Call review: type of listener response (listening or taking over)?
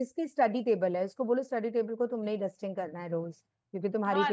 taking over